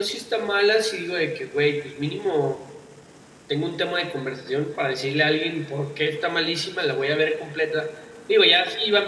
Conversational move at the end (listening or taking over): listening